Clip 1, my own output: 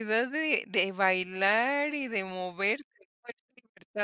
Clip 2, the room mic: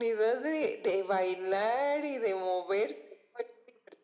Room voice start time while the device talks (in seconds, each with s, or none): none